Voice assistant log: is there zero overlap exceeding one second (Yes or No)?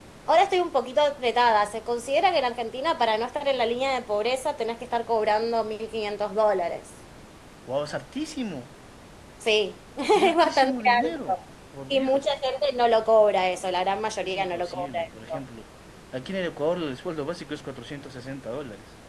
No